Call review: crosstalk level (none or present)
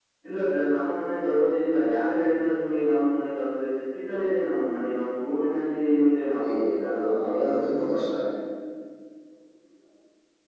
present